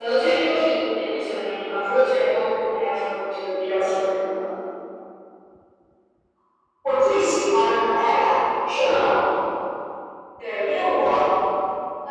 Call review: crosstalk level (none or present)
none